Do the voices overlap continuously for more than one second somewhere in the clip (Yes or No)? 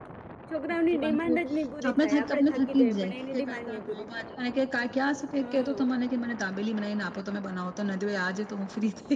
Yes